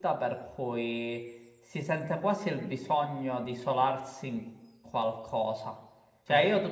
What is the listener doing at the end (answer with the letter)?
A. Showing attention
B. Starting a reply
A